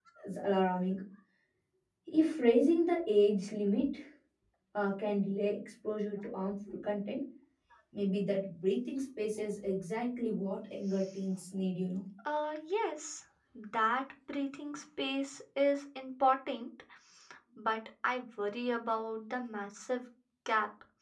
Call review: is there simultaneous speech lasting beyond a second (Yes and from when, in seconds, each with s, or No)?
No